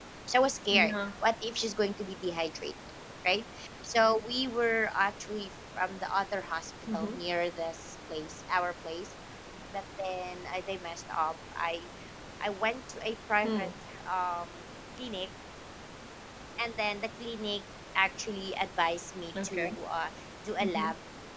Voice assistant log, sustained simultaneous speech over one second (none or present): none